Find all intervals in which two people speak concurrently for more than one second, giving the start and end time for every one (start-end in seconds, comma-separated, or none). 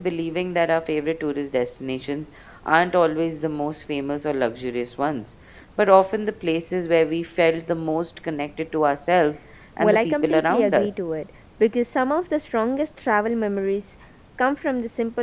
9.8-11.0